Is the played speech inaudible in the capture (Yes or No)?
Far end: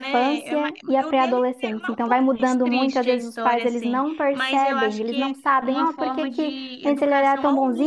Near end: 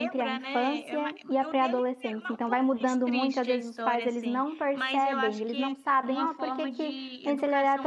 No